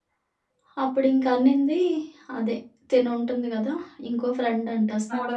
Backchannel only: Yes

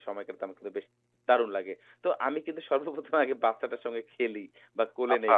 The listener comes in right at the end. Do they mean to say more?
No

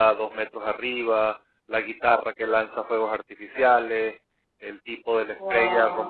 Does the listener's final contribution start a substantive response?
No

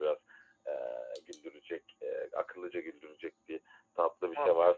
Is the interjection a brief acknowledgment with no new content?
Yes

